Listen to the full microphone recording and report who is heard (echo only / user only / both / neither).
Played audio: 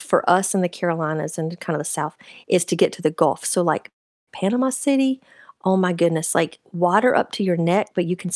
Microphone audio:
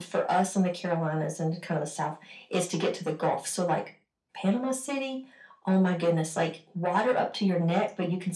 echo only